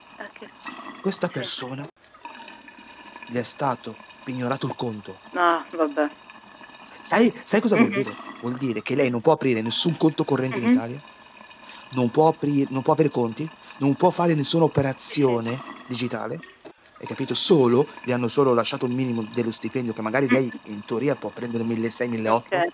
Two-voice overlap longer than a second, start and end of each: none

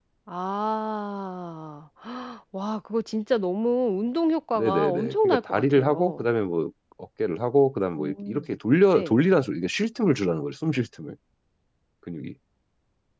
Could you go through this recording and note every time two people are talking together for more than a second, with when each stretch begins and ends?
4.5-6.2

